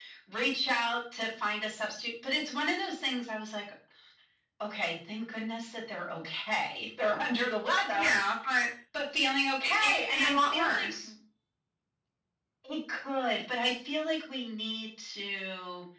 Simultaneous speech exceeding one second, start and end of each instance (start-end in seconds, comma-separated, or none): 9.6-10.9